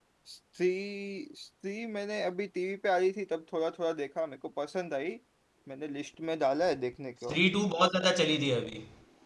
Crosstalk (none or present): none